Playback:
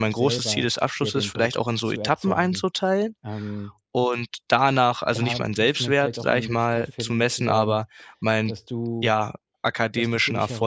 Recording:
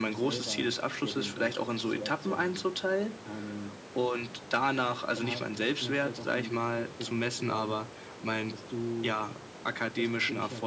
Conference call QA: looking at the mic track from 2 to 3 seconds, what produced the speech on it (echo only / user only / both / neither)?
echo only